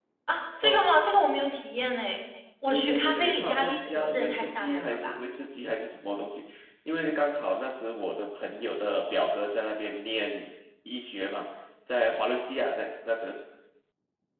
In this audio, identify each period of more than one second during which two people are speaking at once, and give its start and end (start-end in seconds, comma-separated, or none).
2.7-5.2